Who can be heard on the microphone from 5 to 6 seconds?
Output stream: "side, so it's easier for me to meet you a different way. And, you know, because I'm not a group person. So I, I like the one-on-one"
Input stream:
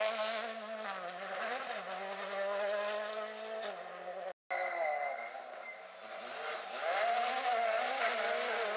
neither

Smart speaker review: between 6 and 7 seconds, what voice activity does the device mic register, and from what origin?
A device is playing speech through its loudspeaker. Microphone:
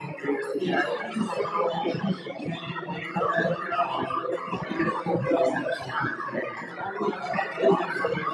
echo only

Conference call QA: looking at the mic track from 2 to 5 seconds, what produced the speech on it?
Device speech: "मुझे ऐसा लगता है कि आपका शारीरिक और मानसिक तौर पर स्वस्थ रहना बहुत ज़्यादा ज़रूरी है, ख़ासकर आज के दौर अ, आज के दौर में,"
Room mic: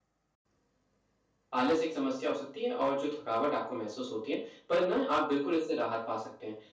user only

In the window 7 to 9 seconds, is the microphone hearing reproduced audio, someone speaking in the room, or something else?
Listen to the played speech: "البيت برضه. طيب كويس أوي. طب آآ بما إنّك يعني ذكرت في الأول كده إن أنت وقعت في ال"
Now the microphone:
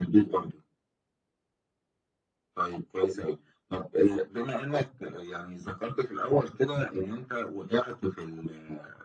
echo only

